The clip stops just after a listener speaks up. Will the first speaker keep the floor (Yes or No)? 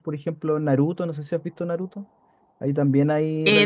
No